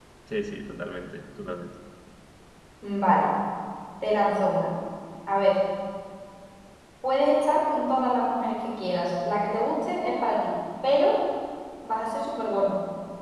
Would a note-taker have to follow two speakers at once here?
No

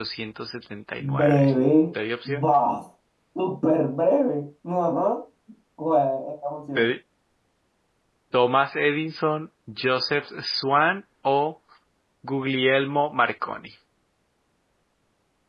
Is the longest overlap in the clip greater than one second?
No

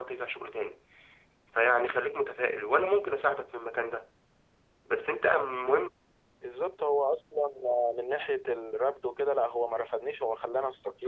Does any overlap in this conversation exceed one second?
No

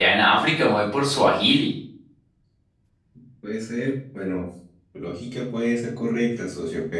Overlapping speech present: No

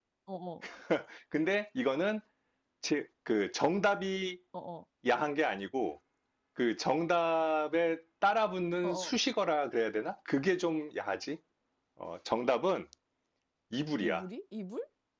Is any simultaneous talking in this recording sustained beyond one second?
No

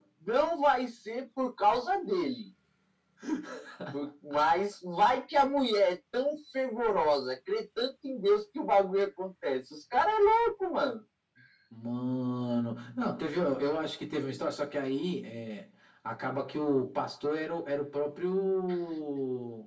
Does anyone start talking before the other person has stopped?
No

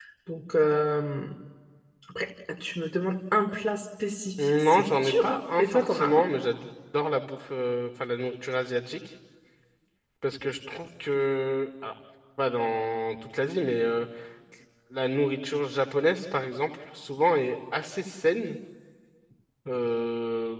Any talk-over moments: Yes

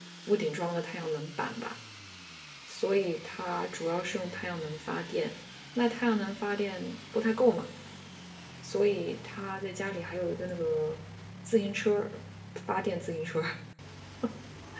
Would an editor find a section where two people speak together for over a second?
No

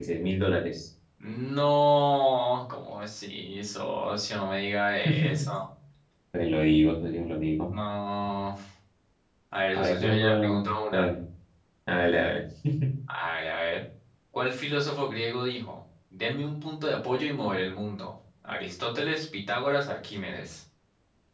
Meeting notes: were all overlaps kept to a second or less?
No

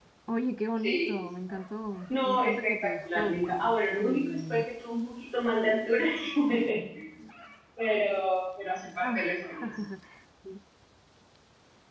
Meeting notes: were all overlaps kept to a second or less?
No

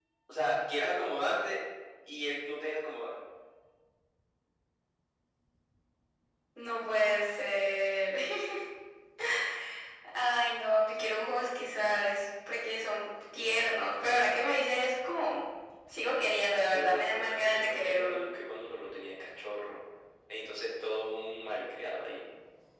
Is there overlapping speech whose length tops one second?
Yes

